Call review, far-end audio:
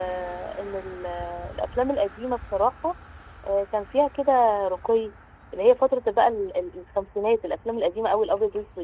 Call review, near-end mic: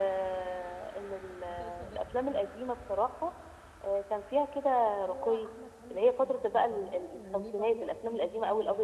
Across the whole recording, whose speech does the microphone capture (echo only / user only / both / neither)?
both